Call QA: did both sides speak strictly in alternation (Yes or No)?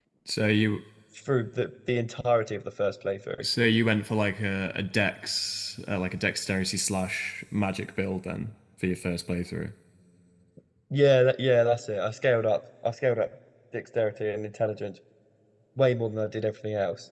Yes